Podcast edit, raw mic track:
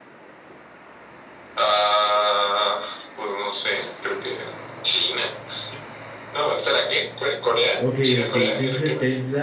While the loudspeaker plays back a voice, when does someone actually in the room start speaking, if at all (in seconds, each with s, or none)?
7.8 s